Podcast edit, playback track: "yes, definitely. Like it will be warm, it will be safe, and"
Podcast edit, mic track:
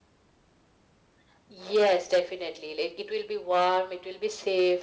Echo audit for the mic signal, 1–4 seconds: echo only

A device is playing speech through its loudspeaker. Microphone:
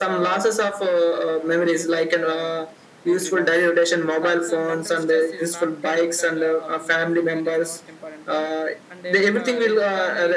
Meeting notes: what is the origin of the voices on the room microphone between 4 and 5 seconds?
both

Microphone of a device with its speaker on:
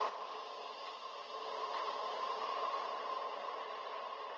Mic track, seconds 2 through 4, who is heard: neither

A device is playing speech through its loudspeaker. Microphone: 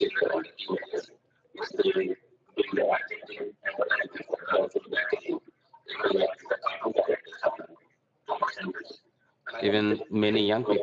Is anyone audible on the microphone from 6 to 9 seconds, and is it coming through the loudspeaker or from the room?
echo only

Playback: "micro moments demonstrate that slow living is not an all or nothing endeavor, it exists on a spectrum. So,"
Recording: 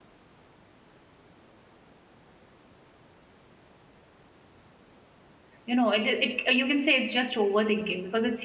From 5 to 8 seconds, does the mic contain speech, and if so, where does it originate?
user only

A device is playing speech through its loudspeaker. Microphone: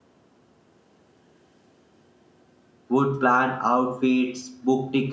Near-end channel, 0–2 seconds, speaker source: neither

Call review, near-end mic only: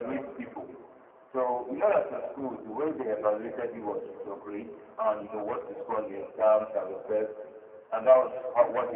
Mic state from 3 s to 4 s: echo only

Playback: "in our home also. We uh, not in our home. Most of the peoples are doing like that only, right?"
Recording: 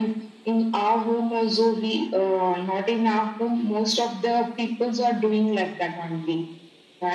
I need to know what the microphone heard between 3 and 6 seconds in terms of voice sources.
echo only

